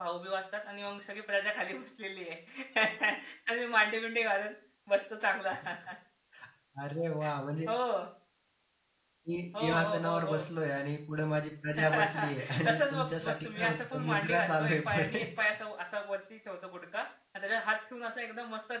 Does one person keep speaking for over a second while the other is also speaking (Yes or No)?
Yes